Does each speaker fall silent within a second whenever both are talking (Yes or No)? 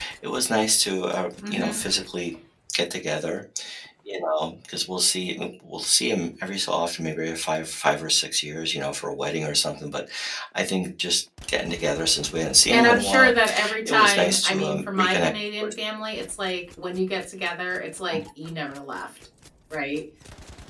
No